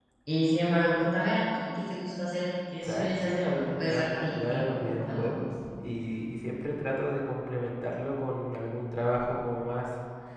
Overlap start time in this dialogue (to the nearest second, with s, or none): 3 s